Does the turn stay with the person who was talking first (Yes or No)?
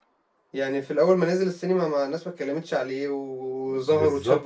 No